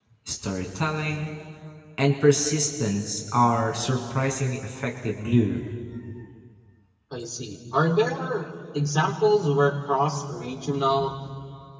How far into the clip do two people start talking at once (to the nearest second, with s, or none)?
none